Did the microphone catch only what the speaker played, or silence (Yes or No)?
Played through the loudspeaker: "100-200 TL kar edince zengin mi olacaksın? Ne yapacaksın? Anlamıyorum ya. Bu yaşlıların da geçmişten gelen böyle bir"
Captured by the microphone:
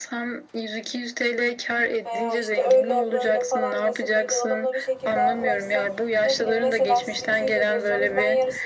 No